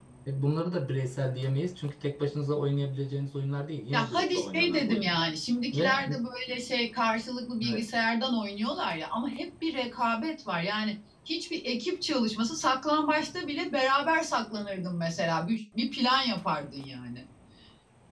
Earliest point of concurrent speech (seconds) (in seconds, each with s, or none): 3.9 s